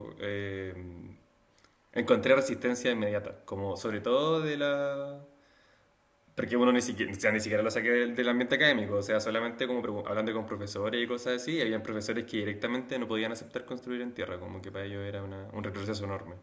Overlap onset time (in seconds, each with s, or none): none